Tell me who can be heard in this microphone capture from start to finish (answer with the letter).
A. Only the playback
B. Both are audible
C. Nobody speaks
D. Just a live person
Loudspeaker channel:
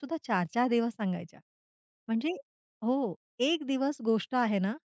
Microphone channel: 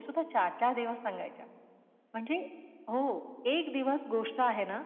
A